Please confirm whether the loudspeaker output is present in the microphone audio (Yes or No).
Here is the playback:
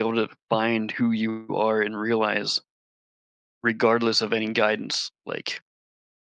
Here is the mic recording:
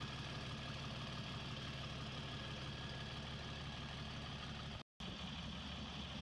No